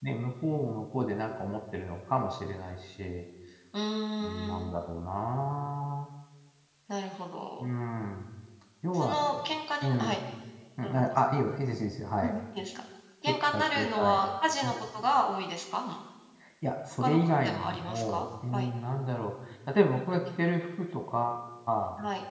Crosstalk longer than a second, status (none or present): present